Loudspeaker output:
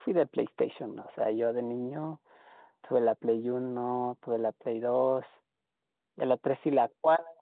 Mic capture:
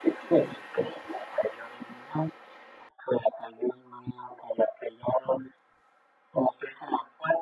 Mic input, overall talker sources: echo only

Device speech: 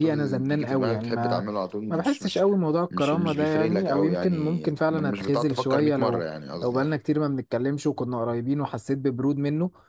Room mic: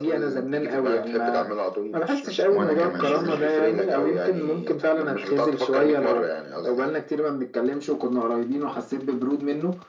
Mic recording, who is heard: both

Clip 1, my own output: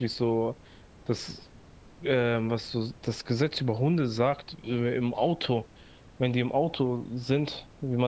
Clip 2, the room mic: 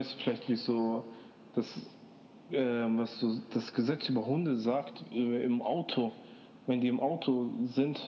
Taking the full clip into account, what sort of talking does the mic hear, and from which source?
echo only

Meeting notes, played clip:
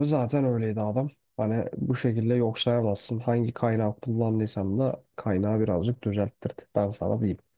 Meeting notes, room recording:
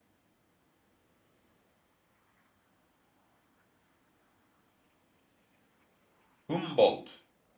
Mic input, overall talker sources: user only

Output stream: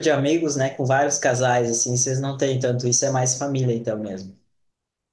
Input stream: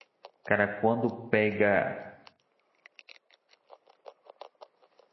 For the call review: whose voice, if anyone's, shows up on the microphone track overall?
user only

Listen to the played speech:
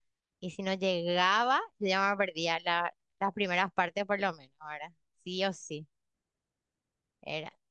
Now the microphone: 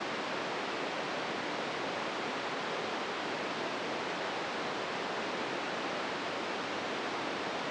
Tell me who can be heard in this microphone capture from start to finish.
neither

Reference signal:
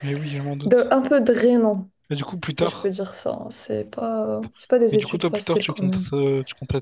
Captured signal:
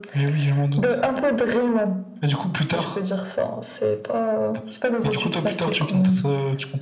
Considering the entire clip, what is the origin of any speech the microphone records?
echo only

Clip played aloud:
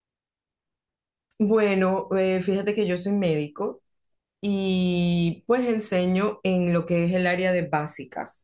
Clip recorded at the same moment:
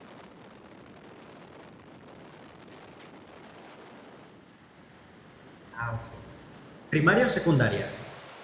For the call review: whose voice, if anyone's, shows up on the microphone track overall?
user only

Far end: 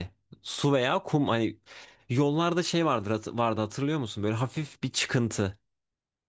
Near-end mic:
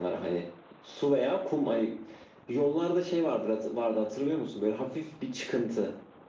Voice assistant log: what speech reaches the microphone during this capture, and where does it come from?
echo only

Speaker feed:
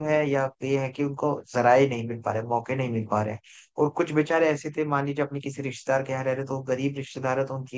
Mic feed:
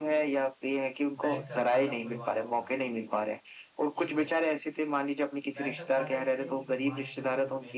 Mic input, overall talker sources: both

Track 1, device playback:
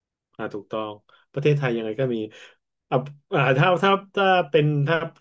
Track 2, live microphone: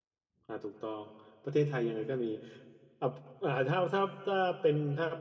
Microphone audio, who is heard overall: echo only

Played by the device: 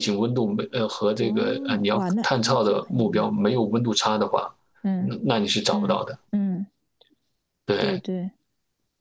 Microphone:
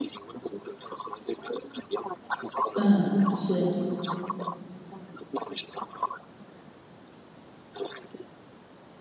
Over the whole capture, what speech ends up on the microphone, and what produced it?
both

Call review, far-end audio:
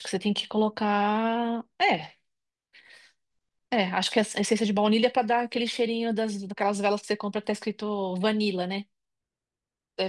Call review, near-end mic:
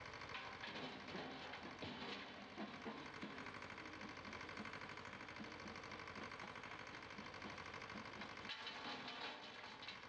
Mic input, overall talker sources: neither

